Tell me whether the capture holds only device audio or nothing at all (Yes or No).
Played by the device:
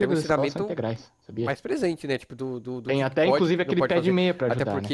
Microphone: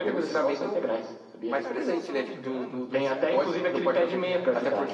No